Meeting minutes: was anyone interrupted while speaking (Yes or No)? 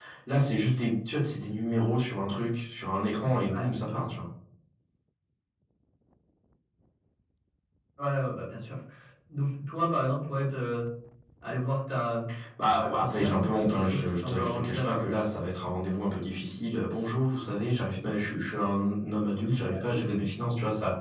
Yes